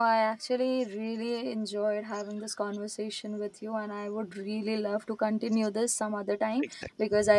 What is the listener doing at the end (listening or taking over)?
listening